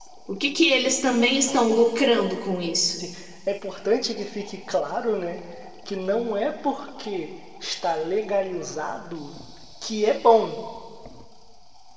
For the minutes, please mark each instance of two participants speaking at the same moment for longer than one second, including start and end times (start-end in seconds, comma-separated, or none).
none